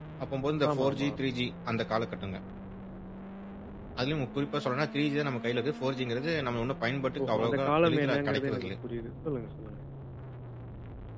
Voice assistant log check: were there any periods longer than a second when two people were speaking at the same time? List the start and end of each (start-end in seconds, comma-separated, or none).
7.2-8.7